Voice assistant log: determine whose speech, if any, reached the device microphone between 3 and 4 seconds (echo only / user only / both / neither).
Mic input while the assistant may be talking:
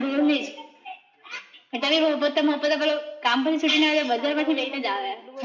echo only